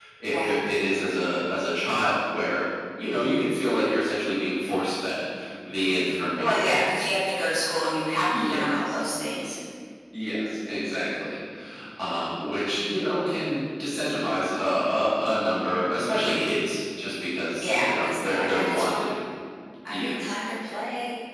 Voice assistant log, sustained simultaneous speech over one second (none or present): present